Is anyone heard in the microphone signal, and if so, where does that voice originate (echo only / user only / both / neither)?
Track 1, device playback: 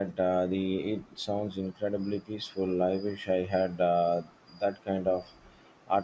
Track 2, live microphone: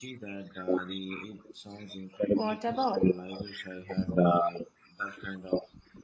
both